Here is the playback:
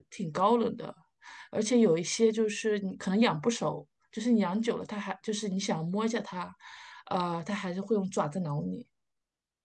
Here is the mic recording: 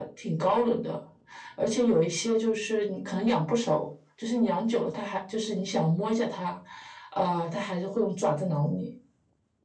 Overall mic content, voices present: echo only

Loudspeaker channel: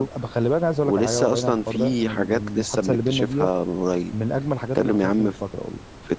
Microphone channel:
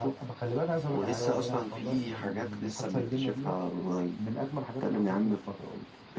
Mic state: echo only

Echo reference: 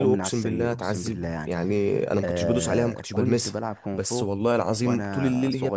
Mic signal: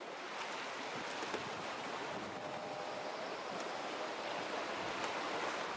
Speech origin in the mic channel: neither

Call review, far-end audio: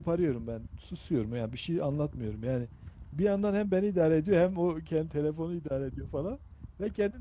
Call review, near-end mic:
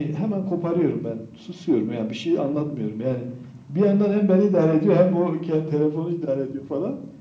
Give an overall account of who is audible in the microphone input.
echo only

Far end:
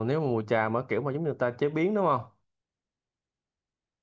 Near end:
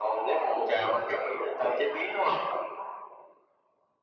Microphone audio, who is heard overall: echo only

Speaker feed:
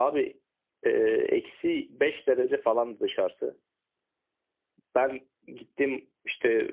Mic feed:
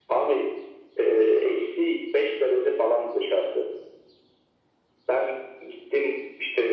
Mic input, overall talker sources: echo only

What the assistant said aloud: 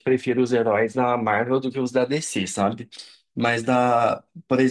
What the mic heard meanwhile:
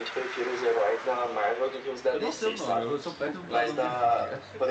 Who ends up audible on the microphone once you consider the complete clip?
both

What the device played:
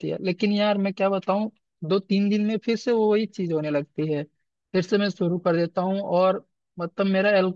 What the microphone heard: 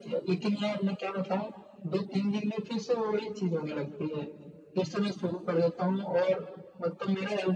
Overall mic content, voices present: echo only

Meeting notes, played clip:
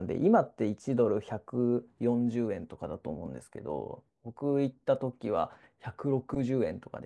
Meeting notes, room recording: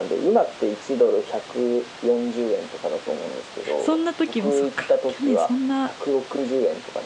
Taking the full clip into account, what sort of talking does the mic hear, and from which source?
both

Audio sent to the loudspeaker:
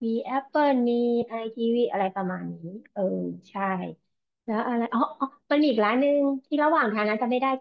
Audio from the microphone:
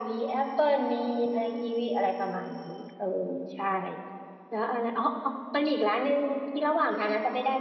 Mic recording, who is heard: echo only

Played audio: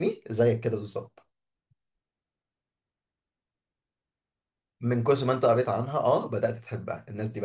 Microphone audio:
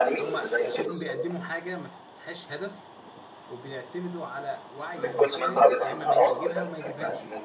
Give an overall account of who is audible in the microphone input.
both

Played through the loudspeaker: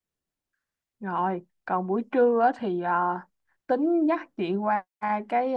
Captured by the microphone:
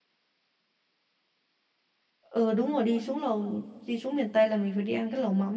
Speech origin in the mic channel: user only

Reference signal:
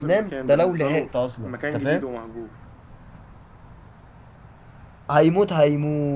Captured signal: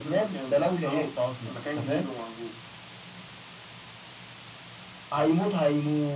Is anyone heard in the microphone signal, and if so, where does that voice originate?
echo only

